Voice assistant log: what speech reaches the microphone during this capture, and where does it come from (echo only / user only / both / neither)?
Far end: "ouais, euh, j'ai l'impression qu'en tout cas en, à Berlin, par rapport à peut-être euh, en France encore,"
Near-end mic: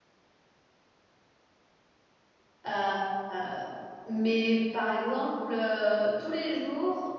user only